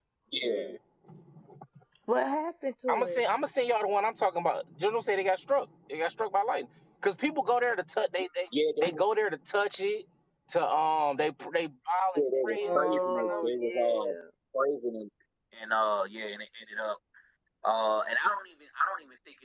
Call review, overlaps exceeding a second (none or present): present